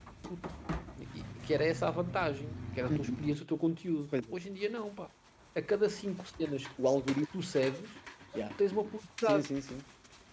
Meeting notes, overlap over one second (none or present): none